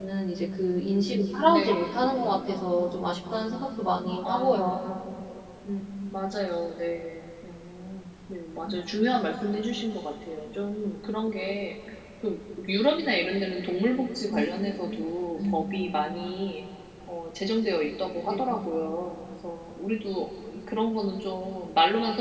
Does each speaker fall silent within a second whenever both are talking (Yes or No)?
Yes